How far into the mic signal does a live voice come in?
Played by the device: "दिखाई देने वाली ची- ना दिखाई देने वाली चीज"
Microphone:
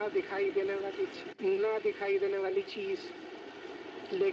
none

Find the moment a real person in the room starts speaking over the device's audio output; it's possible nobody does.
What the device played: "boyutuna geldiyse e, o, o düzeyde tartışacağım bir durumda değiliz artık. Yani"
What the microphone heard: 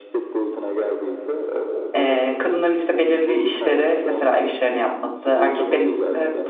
1.9 s

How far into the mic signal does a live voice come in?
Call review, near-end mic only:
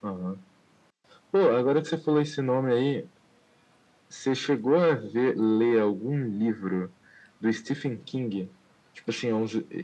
none

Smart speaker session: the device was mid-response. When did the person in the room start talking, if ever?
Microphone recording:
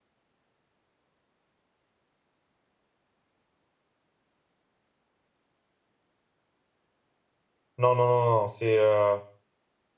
7.8 s

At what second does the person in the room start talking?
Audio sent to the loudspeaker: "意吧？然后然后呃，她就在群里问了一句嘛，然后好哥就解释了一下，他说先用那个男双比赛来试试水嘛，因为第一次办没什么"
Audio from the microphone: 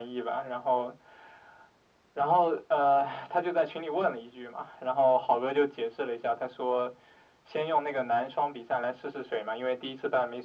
none

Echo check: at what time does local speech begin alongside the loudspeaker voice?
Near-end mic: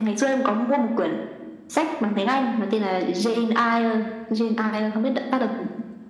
none

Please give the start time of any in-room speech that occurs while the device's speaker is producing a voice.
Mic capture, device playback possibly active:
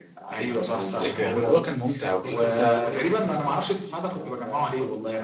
1.0 s

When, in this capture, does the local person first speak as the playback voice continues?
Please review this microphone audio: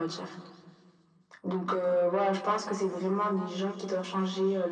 none

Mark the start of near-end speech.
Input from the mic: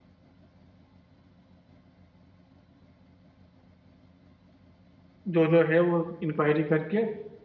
5.3 s

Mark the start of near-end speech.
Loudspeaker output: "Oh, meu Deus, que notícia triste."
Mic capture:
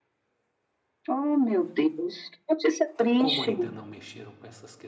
3.0 s

